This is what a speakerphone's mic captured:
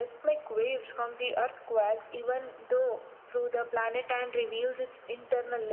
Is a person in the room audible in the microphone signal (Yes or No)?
No